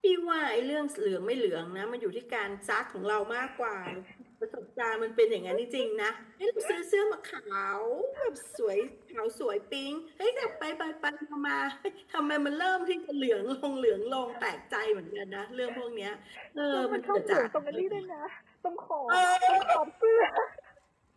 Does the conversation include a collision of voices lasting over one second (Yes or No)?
Yes